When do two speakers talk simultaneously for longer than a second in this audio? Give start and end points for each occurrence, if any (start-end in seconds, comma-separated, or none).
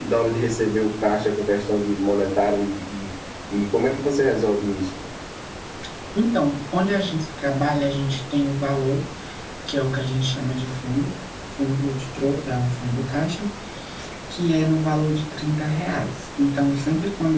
none